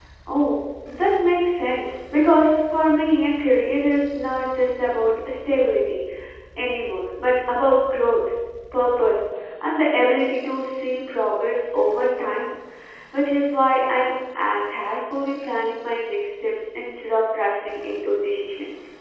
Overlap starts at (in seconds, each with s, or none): none